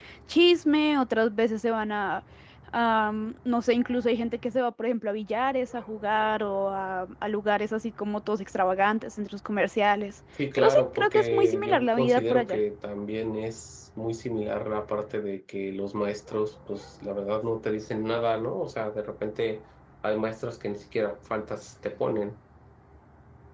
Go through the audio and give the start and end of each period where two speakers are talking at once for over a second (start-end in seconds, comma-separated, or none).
10.6-12.6